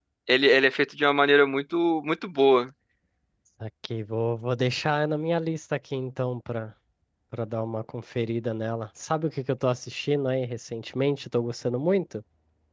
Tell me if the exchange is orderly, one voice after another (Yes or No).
Yes